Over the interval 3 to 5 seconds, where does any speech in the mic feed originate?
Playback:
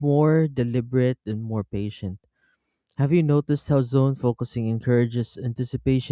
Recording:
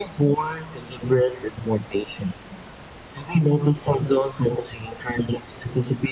echo only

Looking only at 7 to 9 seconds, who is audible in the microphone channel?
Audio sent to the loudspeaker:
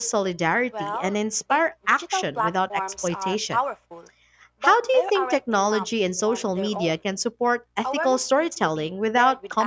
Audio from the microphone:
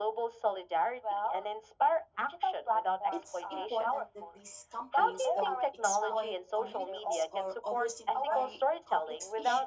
both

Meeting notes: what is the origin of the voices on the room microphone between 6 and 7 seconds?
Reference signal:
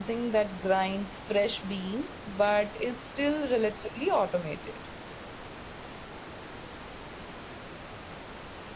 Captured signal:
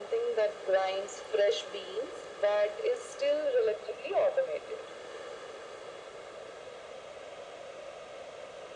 neither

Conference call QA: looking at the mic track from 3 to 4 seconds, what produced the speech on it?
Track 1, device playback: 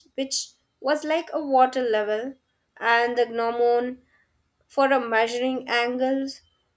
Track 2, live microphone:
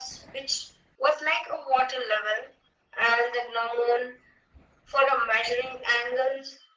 echo only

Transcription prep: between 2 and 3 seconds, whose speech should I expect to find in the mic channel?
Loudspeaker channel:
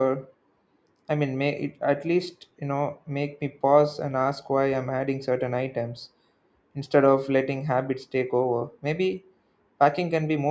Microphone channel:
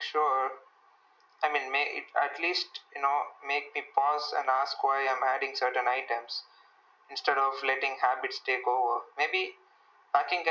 echo only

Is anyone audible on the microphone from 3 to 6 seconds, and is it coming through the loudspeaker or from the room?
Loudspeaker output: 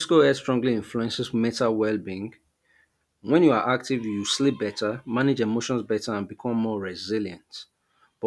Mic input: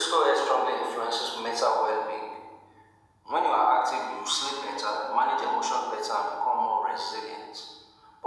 echo only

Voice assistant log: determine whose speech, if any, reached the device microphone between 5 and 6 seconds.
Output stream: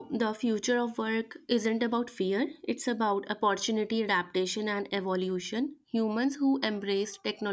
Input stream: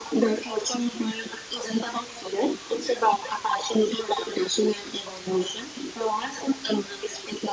echo only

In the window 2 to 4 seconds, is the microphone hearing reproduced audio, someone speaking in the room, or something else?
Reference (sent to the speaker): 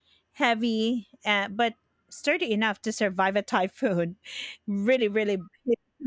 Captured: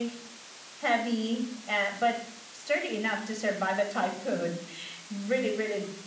echo only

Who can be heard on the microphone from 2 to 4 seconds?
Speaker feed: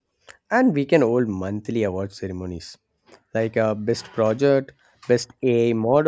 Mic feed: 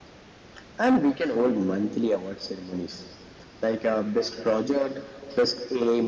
echo only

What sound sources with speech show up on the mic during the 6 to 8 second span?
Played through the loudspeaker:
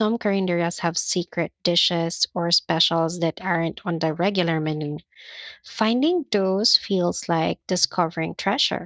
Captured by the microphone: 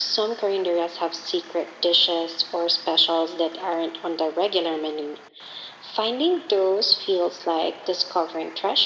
echo only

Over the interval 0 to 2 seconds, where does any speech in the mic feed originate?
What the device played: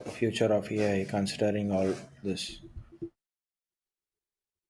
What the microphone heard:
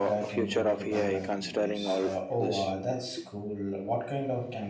both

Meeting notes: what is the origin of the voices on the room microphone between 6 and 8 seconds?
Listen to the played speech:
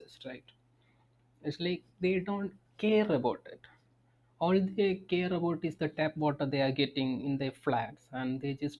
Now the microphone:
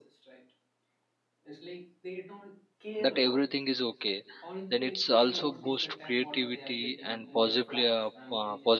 both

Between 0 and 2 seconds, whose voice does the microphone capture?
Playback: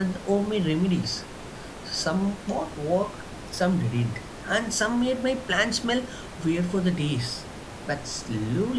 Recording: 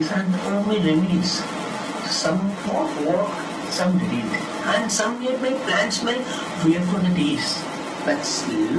echo only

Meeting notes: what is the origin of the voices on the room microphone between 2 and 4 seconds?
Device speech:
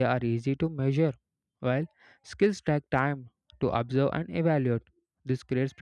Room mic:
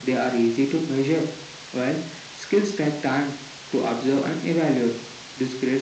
echo only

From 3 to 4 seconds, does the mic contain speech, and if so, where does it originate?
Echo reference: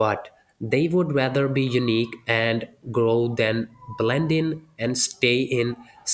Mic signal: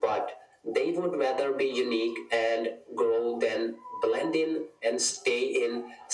echo only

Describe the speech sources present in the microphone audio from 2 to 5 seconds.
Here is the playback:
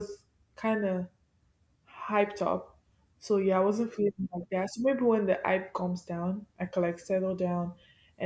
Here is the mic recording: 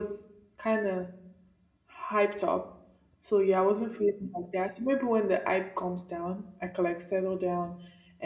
echo only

